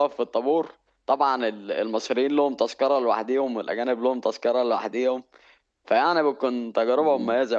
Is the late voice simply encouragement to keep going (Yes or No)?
Yes